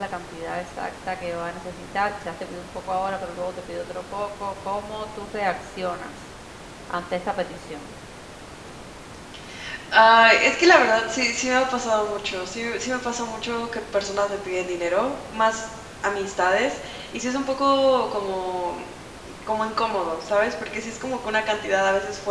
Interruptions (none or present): none